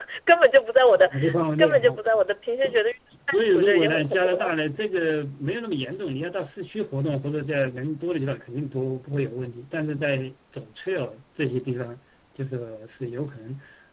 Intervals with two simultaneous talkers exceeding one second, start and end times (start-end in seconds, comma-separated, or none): 3.3-4.5